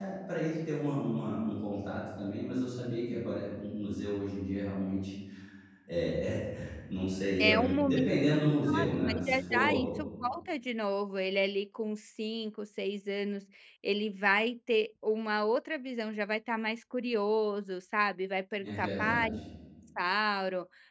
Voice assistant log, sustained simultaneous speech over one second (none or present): present